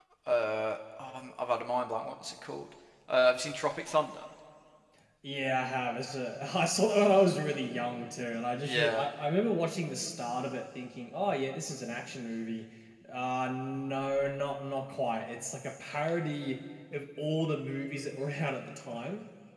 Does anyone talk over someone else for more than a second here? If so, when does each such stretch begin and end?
none

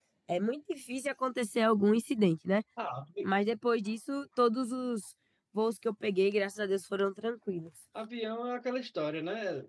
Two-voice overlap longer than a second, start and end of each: none

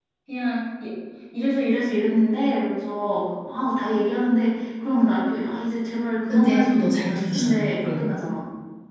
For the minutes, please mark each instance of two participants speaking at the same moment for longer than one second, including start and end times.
6.3-8.0

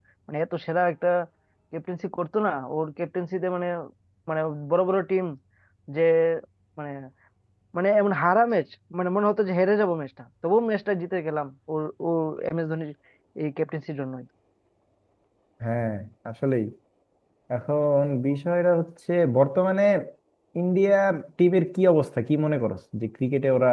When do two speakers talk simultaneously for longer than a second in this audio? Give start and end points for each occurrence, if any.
none

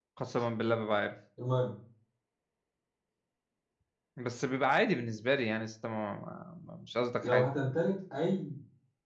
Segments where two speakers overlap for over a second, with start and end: none

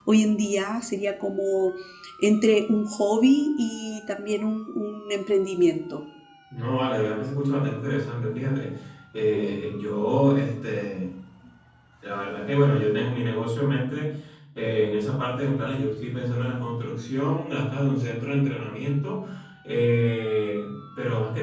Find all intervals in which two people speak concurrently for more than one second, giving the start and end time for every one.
none

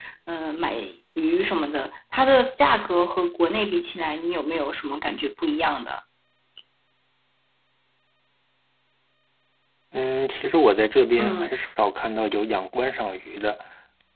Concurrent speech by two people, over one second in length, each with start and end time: none

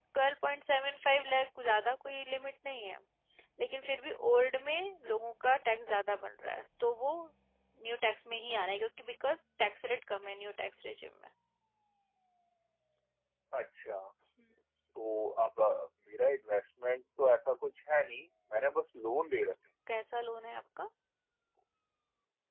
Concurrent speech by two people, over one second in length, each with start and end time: none

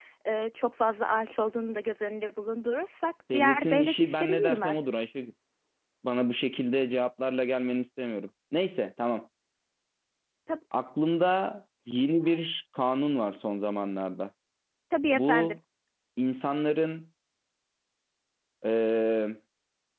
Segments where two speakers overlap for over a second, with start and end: 3.3-4.8

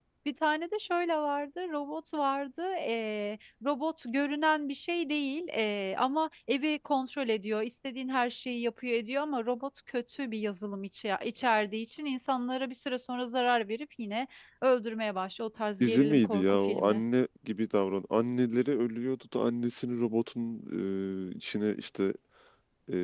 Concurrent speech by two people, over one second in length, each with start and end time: 15.8-17.0

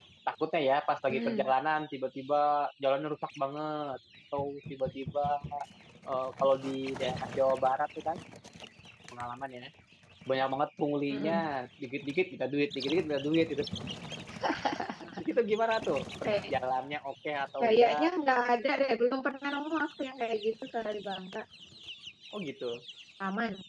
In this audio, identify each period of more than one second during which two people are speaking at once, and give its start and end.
none

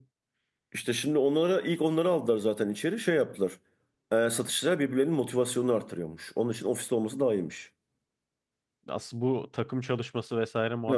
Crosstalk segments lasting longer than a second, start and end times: none

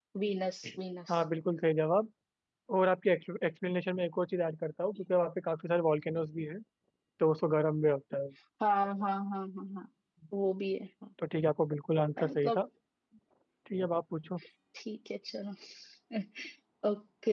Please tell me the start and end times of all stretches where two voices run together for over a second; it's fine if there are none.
none

